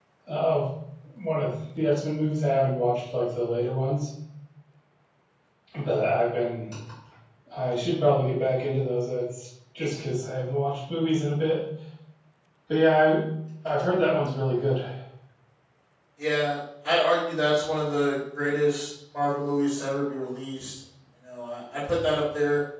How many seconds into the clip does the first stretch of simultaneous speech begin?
none

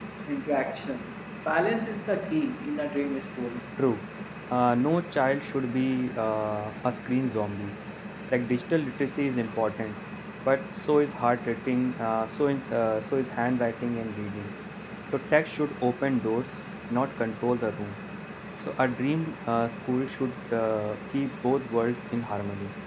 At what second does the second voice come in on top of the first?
none

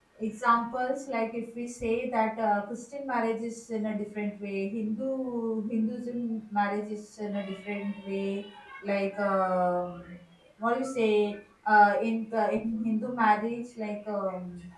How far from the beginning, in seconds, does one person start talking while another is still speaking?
none

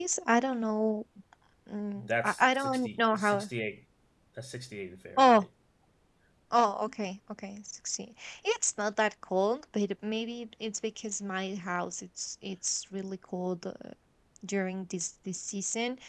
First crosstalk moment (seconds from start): 2 s

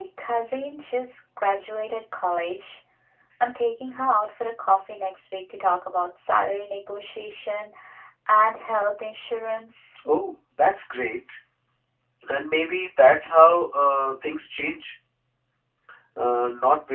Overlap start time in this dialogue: none

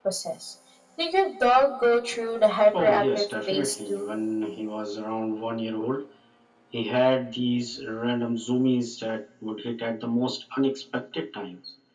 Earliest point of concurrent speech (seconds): 3 s

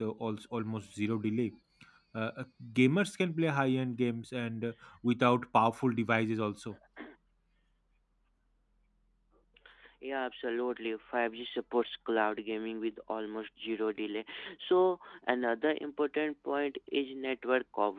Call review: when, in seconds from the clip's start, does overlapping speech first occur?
none

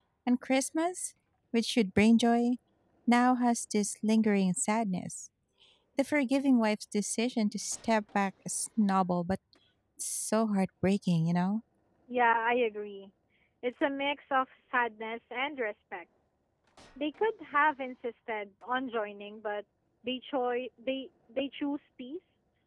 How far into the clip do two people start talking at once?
none

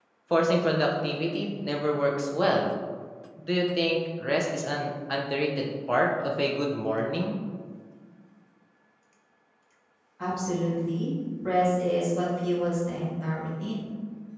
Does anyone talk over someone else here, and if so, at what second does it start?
none

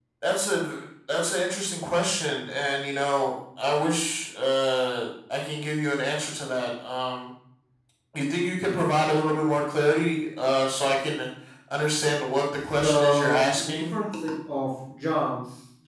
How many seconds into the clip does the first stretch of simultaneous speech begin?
13 s

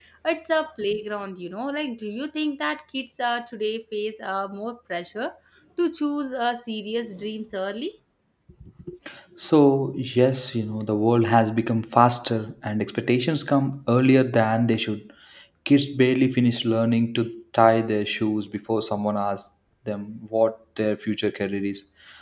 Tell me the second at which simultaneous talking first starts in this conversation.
none

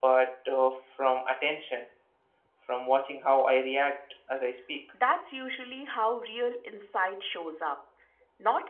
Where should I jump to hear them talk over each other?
none

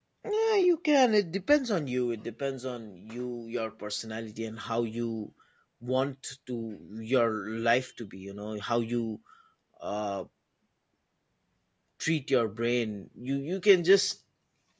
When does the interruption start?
none

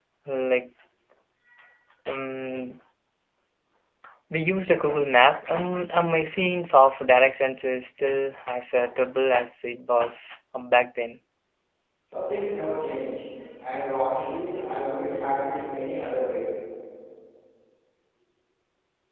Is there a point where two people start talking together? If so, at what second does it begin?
none

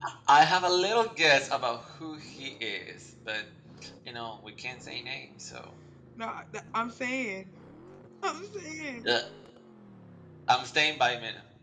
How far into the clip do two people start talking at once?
none

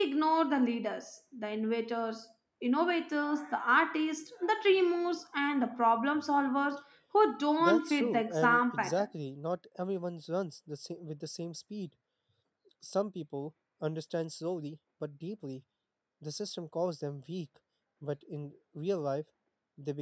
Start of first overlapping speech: 8 s

